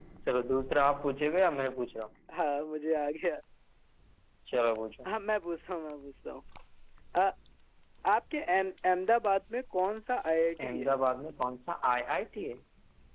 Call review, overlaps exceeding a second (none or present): none